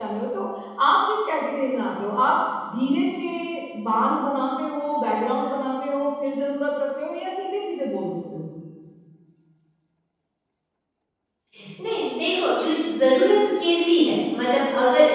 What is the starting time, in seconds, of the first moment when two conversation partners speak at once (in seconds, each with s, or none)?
none